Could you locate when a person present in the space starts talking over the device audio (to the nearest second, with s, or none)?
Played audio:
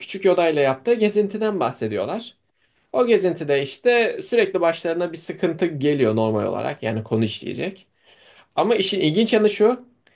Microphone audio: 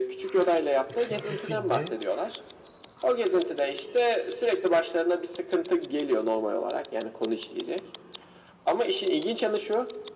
1 s